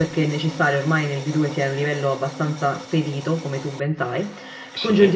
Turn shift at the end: No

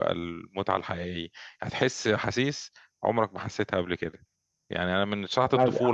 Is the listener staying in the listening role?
Yes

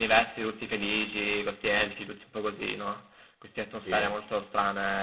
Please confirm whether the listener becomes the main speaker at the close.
No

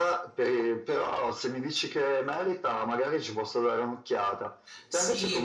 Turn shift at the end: Yes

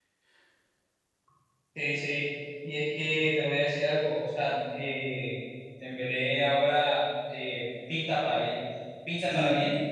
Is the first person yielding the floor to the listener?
No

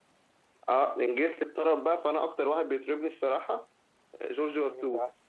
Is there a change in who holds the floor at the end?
Yes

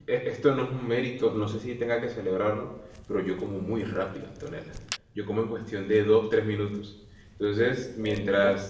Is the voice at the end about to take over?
No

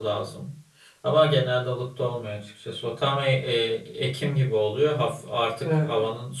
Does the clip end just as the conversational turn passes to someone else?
No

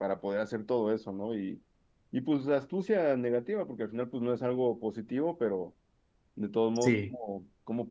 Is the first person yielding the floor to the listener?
No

